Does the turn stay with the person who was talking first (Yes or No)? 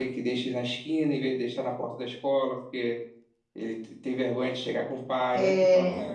Yes